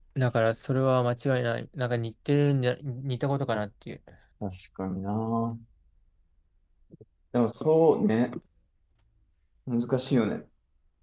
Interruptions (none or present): none